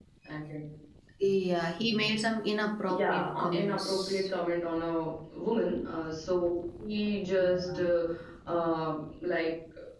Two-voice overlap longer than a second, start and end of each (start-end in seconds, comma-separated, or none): 2.9-4.3